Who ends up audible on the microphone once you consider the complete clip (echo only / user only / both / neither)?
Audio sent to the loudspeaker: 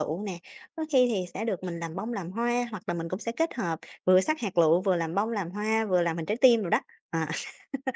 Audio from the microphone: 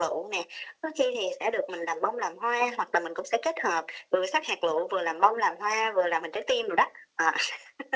echo only